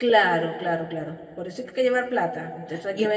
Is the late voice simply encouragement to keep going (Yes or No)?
No